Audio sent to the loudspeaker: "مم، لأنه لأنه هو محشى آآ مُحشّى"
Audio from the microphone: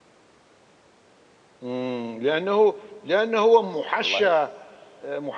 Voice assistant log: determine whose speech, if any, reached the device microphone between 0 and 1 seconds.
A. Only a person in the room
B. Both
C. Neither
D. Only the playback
C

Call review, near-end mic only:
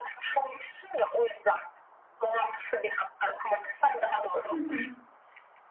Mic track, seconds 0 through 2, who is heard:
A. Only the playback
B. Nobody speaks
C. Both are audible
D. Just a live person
A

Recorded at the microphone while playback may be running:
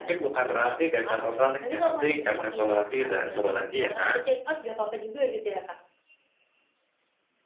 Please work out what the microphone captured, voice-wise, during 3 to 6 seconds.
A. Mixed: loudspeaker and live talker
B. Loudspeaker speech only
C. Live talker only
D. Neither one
B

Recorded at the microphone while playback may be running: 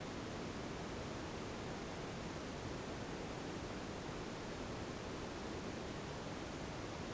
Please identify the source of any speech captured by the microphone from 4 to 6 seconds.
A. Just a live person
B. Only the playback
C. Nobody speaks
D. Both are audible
C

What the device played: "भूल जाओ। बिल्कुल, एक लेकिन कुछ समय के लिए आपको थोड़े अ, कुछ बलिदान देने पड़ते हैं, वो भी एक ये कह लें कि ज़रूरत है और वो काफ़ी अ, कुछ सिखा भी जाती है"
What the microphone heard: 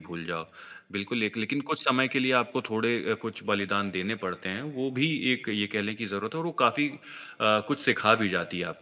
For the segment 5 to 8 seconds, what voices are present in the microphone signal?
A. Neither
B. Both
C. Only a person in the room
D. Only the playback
D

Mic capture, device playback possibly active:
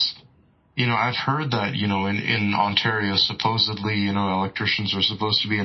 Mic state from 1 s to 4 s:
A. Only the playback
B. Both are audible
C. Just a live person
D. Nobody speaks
A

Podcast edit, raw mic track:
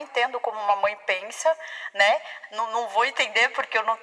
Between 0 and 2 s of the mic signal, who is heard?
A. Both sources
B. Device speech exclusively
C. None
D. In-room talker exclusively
B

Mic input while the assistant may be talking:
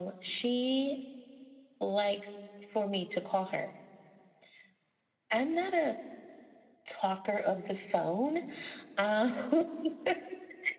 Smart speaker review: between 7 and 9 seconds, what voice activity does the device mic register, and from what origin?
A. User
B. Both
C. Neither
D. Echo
D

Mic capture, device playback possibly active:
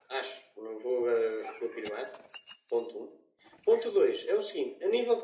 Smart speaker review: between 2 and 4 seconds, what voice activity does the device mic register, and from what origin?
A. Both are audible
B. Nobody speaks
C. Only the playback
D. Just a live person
C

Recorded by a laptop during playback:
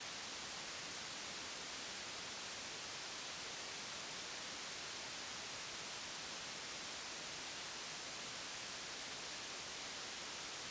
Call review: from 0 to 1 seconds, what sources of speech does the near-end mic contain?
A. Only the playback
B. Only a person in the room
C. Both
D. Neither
D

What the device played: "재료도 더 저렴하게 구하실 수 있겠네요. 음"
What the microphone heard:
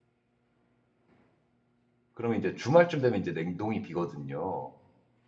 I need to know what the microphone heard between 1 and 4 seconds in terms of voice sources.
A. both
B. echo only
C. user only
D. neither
C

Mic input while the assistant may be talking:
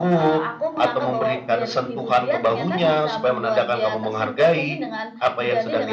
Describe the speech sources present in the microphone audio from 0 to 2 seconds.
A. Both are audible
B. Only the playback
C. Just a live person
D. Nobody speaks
B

